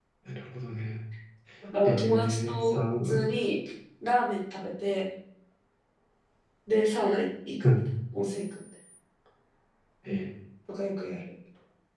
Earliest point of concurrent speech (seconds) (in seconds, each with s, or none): 1.8 s